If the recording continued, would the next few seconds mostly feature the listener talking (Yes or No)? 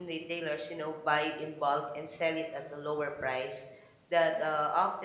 No